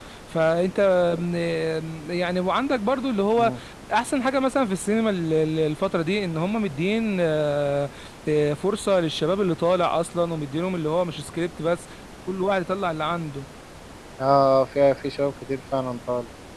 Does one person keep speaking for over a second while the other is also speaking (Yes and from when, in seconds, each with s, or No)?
No